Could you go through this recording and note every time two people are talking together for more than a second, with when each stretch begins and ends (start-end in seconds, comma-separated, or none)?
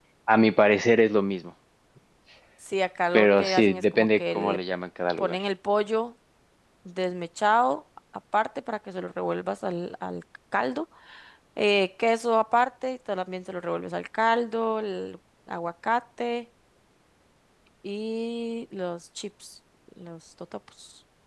3.1-4.6